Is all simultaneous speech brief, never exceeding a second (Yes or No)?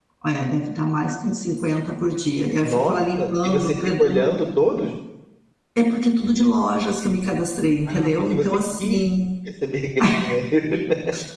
No